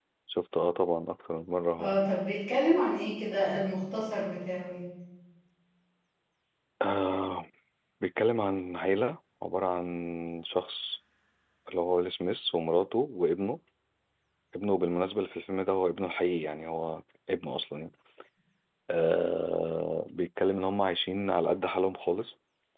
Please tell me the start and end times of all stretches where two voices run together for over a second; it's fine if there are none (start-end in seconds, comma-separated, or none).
none